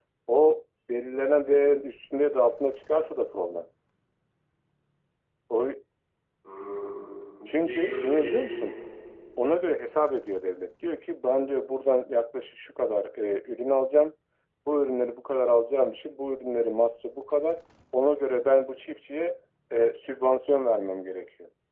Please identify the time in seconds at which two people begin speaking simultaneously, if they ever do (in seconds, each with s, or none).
7.5 s